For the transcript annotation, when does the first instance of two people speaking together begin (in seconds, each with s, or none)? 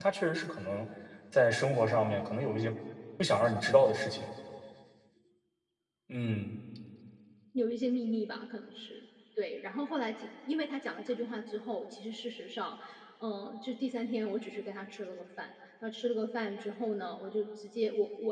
none